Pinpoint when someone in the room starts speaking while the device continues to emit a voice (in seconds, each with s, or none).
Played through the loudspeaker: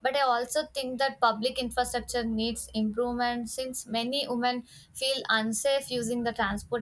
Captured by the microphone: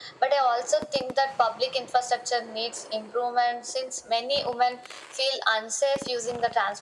none